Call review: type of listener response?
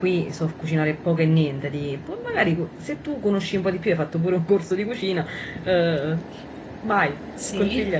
taking over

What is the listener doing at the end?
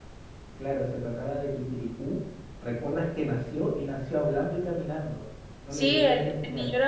taking over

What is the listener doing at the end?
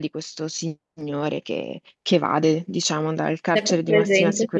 taking over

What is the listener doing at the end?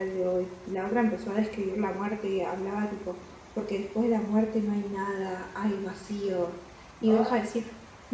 listening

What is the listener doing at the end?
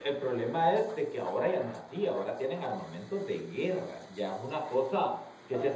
listening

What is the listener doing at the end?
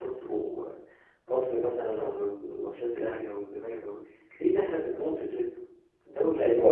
taking over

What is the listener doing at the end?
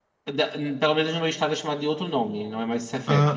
taking over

